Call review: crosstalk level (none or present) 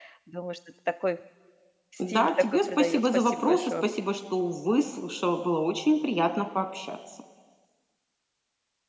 present